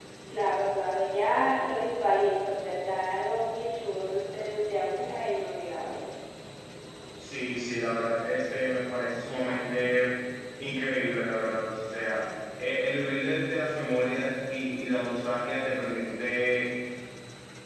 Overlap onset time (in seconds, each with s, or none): none